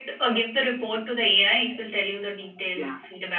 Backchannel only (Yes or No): No